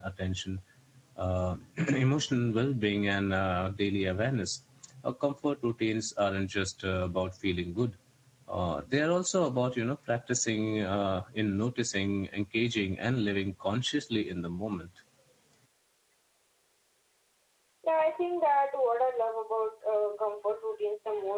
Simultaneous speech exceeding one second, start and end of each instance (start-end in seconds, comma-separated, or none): none